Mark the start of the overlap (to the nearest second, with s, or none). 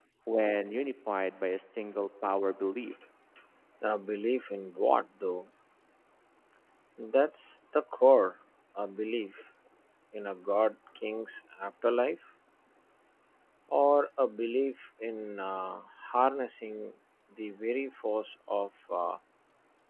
none